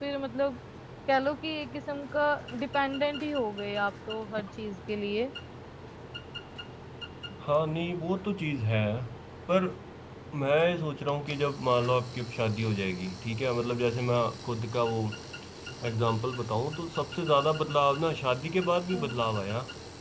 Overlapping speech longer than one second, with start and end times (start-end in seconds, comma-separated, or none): none